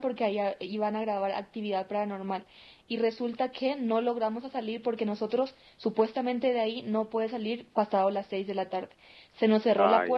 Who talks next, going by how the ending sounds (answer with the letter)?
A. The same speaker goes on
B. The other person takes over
A